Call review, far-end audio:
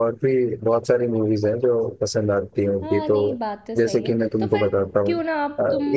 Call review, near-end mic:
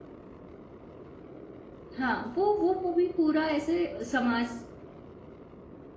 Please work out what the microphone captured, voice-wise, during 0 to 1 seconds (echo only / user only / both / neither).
neither